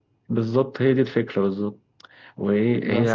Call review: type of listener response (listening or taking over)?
listening